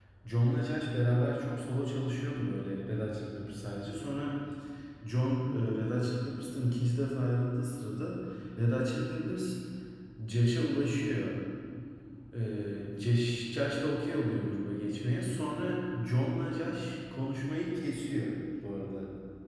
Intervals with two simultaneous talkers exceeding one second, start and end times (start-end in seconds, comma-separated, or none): none